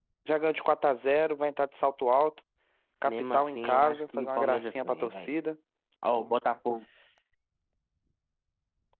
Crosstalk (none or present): present